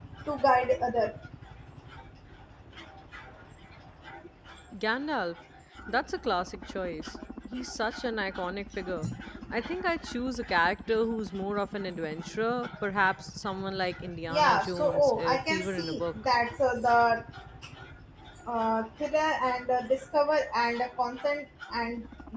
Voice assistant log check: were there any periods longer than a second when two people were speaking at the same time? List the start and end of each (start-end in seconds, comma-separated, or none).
14.3-16.1